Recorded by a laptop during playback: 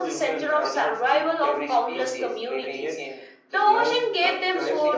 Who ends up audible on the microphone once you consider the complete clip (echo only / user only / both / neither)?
both